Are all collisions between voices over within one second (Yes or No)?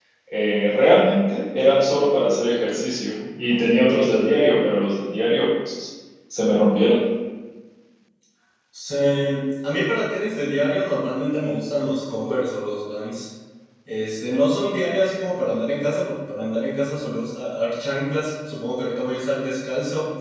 Yes